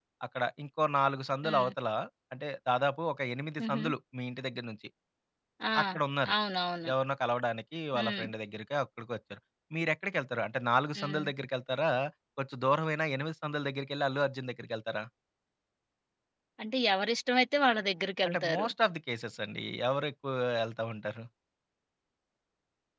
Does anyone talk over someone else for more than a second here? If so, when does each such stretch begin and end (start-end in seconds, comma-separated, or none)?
none